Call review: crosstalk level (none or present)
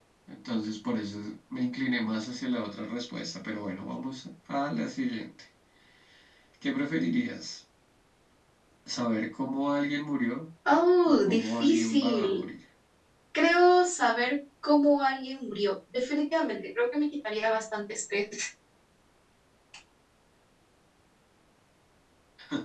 present